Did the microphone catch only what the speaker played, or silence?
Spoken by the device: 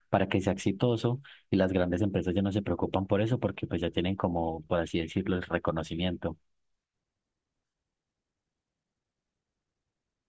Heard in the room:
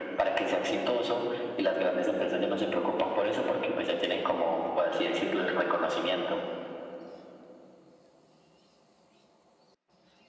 Yes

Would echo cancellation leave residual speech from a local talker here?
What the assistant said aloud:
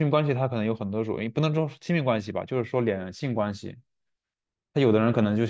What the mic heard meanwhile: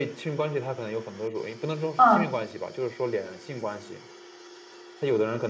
Yes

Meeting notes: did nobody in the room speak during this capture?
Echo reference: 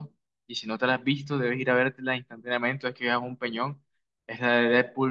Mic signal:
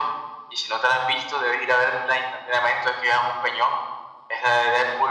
Yes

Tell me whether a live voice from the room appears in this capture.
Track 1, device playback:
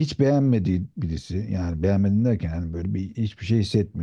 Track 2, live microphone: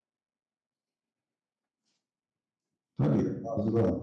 Yes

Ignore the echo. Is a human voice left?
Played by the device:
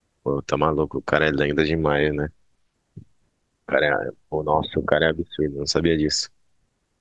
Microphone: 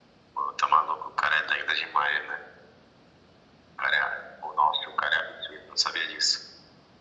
No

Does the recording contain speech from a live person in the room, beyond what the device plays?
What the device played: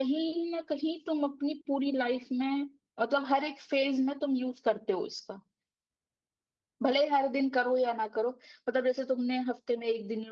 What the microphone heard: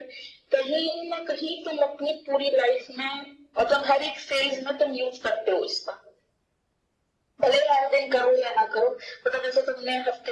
No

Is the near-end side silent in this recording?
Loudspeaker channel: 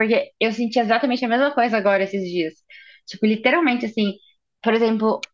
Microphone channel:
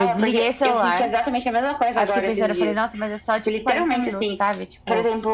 No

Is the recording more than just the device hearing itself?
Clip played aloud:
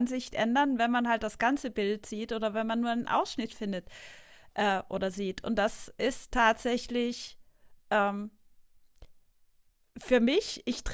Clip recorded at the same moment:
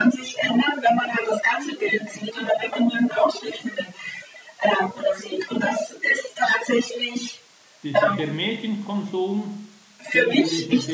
Yes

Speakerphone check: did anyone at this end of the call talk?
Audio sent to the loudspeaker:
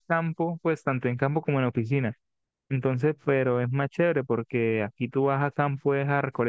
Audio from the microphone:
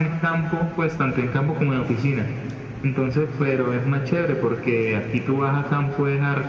No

